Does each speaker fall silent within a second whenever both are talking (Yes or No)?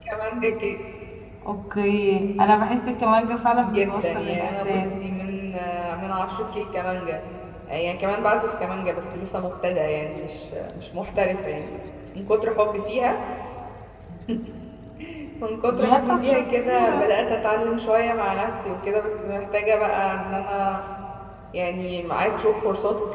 No